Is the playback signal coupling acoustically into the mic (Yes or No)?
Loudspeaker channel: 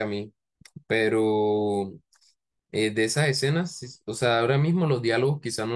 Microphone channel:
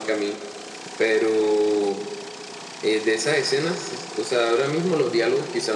Yes